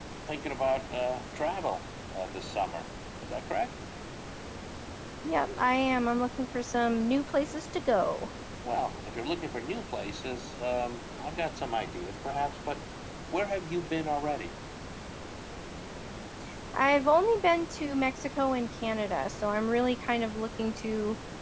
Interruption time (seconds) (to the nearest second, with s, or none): none